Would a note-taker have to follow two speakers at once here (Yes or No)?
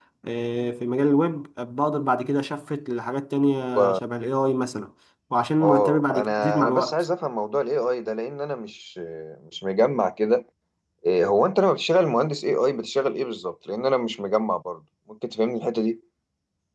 Yes